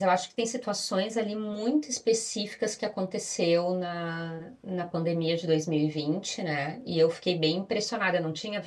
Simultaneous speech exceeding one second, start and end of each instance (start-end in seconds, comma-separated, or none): none